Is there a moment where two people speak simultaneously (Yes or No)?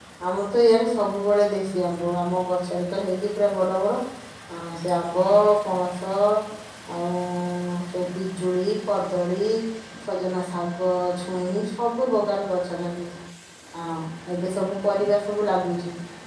No